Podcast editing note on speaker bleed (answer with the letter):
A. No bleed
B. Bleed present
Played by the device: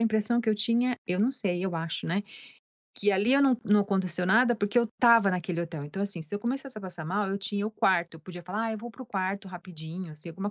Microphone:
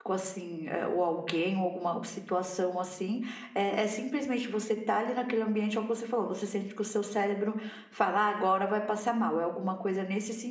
A